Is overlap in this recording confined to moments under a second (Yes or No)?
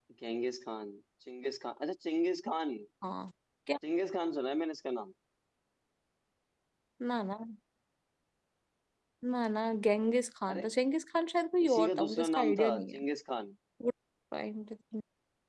No